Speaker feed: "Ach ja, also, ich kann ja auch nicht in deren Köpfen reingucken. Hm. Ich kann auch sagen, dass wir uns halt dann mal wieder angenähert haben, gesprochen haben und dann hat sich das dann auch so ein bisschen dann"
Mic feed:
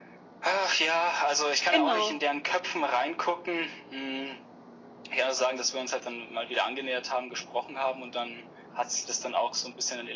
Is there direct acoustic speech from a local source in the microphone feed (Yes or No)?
Yes